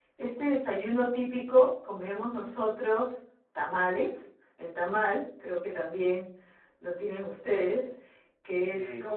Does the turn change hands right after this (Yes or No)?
No